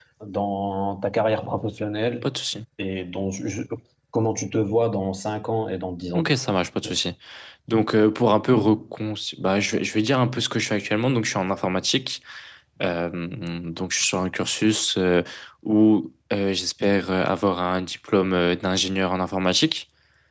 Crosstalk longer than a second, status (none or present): none